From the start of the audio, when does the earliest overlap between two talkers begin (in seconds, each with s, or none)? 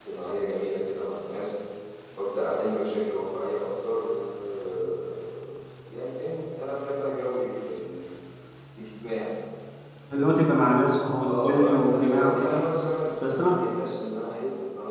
11.2 s